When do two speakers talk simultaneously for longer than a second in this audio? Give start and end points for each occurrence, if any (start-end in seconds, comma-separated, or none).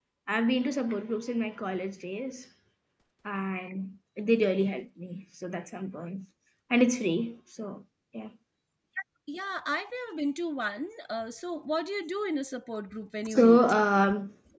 none